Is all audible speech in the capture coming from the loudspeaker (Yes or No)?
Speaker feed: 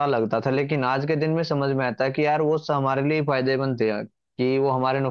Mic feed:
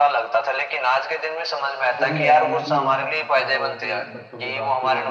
No